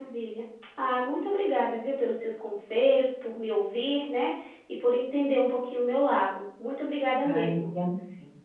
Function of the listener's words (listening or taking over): taking over